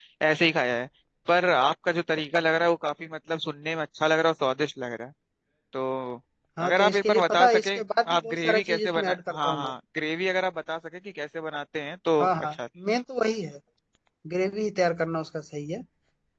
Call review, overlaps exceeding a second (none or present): present